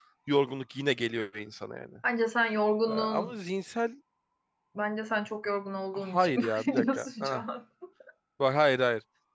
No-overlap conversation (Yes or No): No